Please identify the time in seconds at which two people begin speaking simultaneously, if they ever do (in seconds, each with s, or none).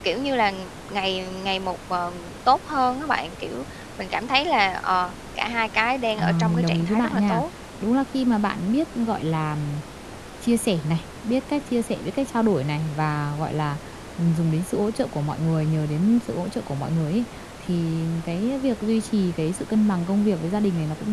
6.2 s